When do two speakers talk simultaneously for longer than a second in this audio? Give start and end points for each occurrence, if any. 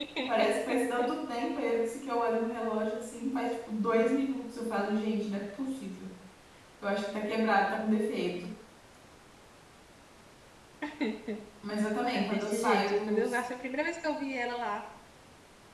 12.1-13.4

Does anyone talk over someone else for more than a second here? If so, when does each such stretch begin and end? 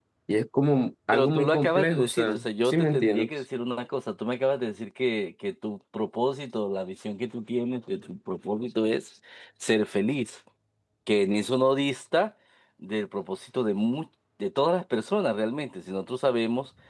1.1-3.3

